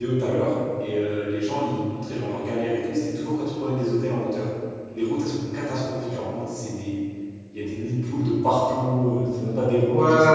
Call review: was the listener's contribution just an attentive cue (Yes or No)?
No